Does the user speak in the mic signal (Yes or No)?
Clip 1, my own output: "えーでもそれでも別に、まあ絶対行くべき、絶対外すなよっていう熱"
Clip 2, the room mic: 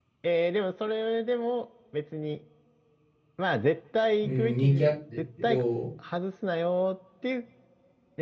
Yes